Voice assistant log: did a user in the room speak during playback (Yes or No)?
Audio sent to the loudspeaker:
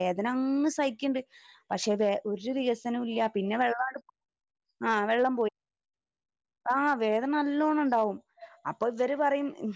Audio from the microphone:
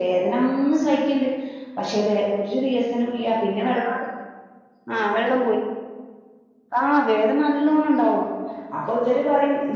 No